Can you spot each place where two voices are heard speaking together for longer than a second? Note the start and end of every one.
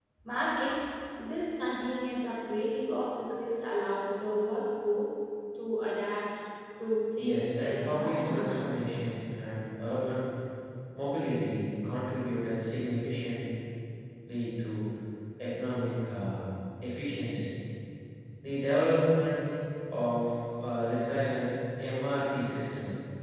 7.2-8.8

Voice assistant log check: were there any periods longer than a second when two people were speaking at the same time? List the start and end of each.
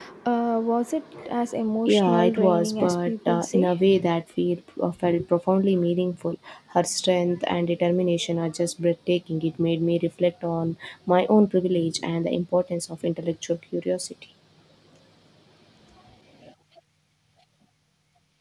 1.9-3.7

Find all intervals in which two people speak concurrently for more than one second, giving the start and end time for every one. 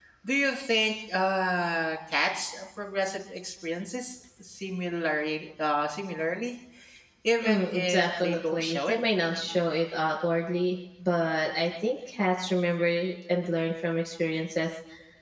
7.4-9.0

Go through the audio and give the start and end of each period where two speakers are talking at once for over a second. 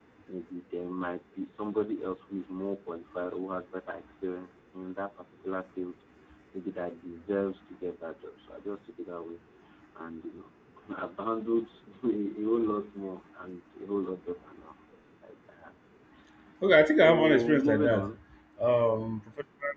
16.8-18.1

